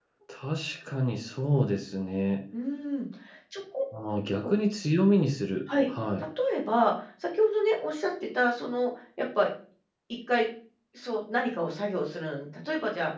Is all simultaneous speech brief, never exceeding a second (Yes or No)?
Yes